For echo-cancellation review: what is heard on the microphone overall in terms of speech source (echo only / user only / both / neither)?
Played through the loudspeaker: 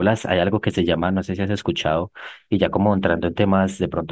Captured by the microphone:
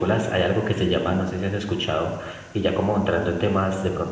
echo only